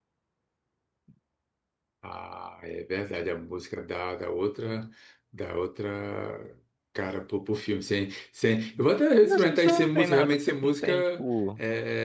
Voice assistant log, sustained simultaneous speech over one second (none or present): present